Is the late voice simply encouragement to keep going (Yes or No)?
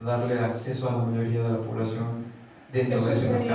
No